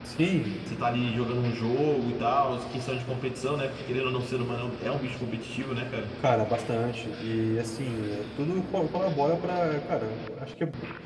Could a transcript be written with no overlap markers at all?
Yes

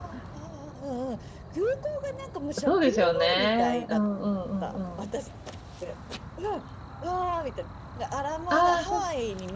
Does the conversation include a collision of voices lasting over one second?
Yes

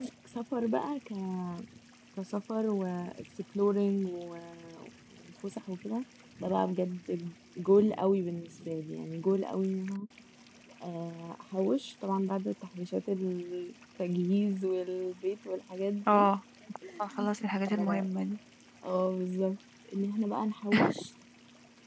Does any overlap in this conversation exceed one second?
No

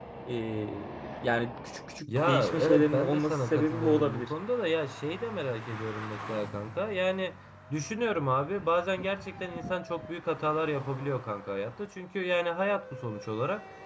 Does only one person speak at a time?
No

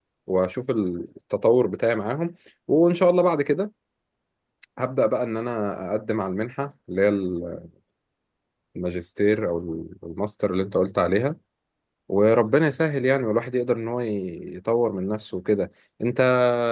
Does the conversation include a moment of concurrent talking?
No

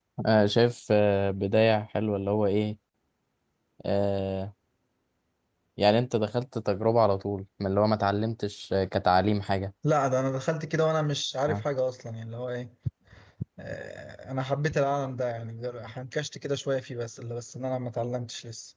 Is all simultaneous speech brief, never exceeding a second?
Yes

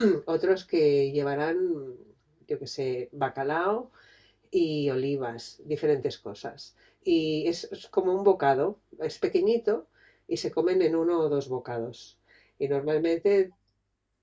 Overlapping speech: No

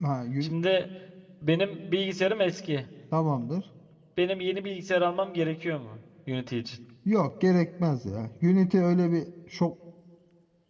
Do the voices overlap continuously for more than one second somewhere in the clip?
No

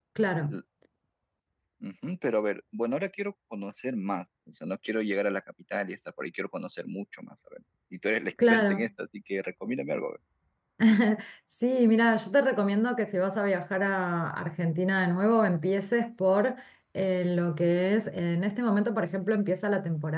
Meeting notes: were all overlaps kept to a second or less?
Yes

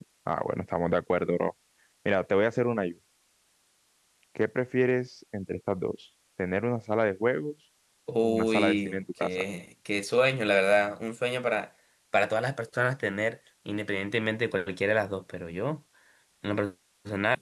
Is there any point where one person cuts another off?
Yes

